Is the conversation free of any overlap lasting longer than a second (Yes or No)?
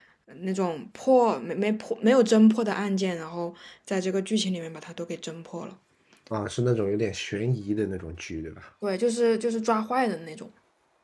Yes